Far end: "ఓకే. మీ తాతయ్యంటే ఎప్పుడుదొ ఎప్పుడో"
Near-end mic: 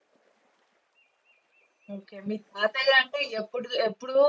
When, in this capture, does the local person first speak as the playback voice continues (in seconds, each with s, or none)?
none